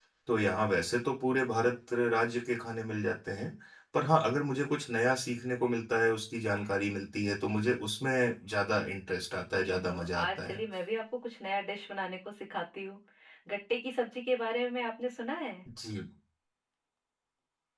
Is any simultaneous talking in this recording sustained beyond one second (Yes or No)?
Yes